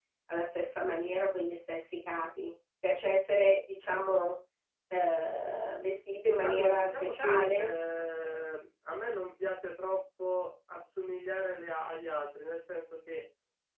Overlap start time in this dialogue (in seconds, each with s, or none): 6.4 s